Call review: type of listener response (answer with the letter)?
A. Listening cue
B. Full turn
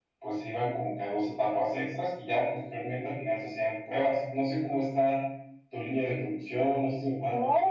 B